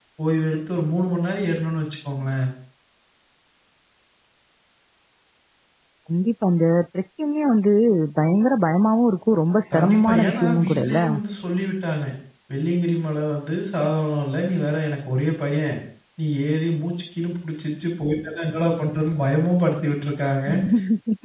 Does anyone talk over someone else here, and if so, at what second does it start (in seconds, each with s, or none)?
9.7 s